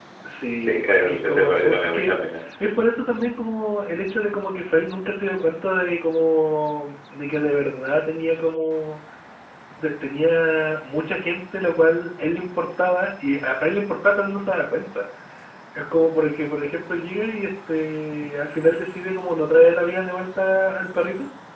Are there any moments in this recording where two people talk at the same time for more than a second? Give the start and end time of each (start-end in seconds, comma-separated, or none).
0.6-2.1